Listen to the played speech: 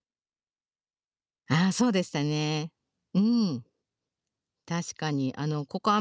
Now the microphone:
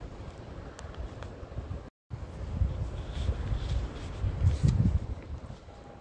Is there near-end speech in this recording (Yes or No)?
No